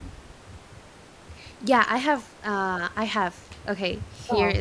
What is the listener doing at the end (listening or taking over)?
listening